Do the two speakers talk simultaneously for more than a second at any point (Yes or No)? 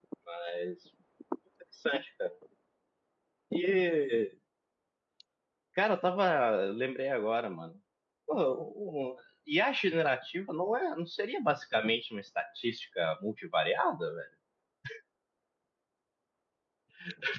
No